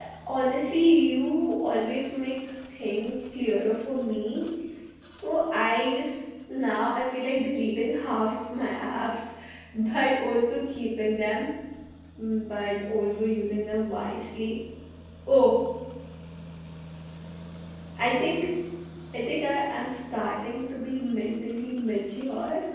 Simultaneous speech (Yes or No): No